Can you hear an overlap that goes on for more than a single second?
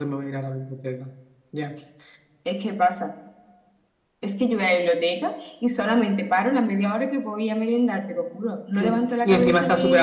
Yes, from 8.8 s

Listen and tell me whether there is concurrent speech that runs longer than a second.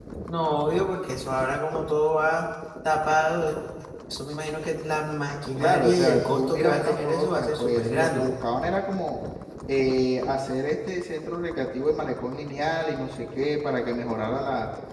Yes, from 5.6 s

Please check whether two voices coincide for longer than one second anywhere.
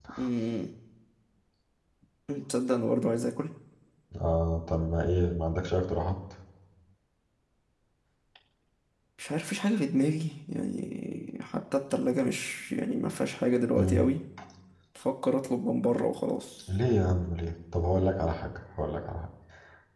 No

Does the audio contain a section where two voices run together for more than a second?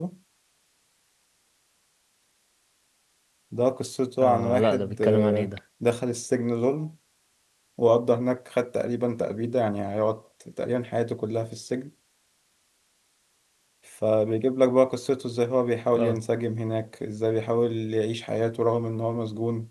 Yes, from 4.2 s

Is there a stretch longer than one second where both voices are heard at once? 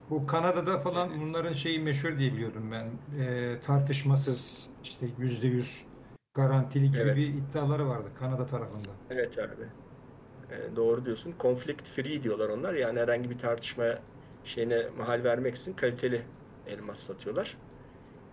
No

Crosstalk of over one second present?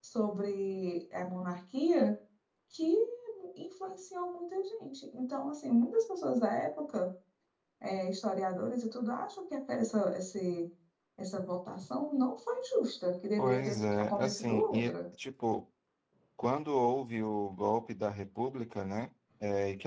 Yes, from 13.4 s

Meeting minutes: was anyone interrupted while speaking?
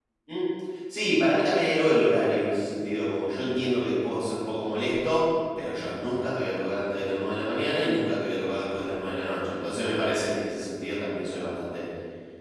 No

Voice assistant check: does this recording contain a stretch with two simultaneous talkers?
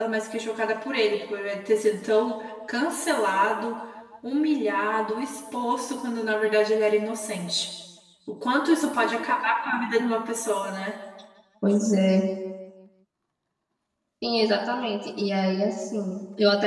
No

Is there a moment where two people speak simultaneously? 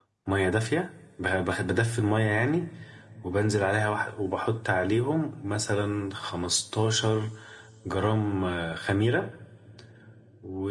No

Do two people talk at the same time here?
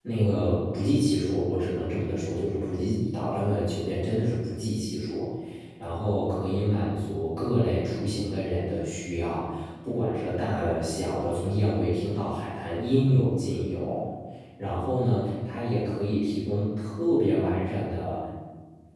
No

